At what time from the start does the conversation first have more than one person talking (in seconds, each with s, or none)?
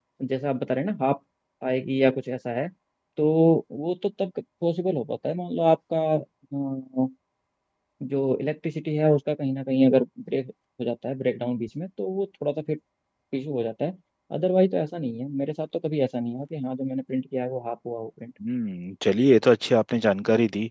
none